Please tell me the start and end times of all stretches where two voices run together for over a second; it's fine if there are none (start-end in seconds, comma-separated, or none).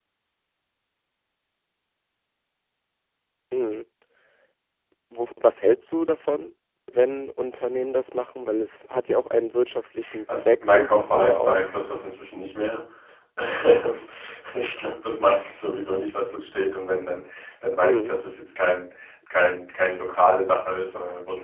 10.3-11.7